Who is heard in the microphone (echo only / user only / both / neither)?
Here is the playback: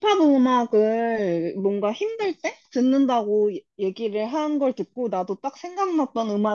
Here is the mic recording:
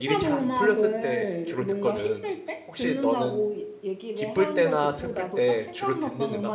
both